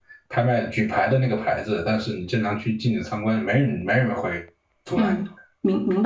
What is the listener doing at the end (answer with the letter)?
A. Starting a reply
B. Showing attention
A